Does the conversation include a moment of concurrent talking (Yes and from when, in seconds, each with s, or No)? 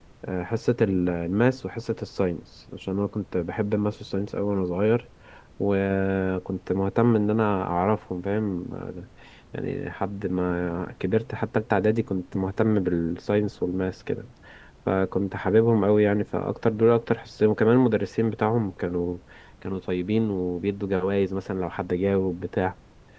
No